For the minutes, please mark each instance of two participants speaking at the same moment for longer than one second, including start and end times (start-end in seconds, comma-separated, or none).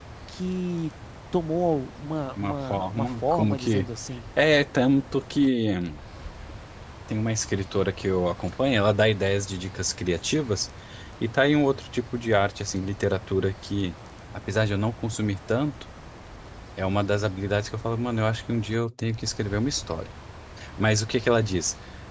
2.4-3.9